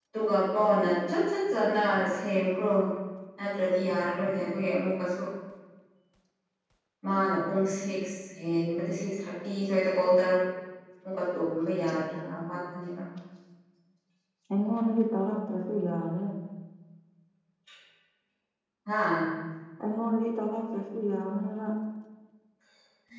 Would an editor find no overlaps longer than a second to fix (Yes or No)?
Yes